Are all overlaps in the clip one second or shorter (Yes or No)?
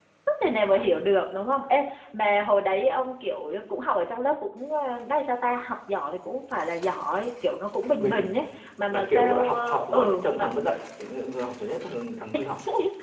No